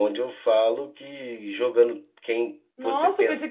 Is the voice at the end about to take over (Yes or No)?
Yes